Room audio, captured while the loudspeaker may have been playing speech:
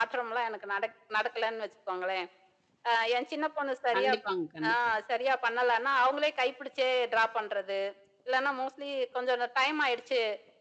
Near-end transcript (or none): கண்டிப்பாங்க, கண்டிப்பா.